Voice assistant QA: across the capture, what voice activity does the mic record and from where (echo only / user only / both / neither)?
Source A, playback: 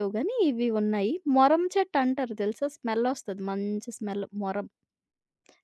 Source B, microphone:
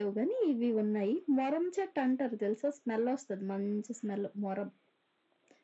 echo only